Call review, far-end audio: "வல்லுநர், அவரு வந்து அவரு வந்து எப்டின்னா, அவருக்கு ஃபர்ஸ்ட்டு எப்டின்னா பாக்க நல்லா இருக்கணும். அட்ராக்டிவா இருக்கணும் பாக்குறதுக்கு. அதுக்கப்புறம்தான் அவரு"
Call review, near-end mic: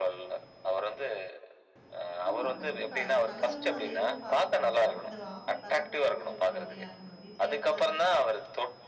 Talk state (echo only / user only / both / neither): both